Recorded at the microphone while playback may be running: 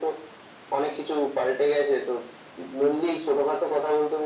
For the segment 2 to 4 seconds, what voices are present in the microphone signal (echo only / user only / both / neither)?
echo only